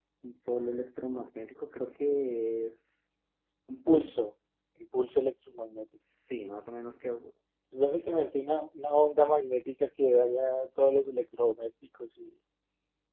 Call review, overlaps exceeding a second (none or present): none